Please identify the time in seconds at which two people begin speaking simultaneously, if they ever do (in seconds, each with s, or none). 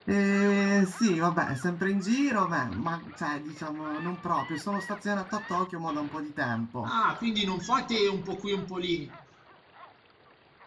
none